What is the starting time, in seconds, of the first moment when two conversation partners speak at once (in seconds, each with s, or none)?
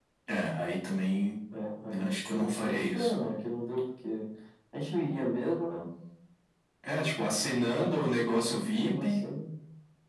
1.9 s